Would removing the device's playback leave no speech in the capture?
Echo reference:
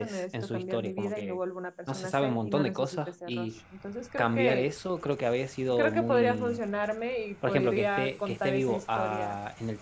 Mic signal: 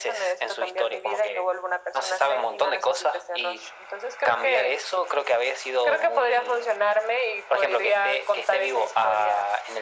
Yes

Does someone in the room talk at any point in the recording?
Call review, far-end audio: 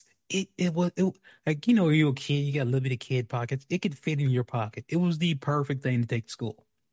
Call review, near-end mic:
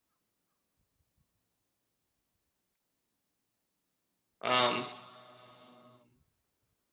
Yes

